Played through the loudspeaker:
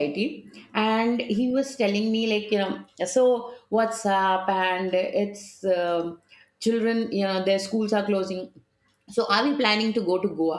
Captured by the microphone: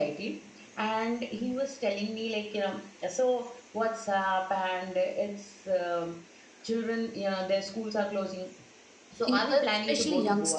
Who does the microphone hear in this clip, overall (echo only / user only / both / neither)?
both